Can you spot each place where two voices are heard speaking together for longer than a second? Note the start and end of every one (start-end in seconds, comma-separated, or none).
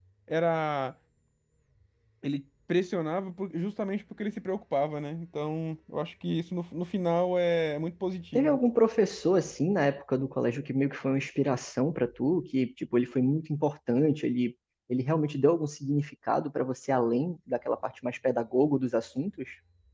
none